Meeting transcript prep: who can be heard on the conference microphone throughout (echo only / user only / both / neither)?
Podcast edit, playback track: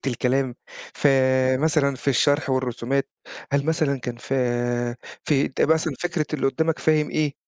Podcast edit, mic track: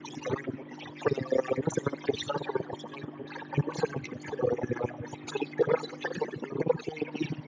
echo only